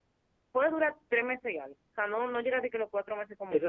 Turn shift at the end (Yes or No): Yes